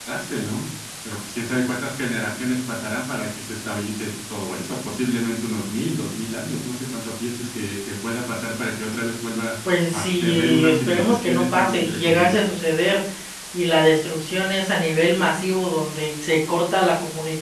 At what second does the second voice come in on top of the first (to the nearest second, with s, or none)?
10 s